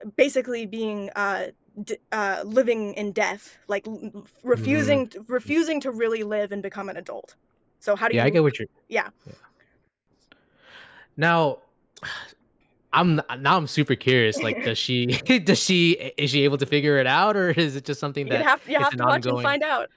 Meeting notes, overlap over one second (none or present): present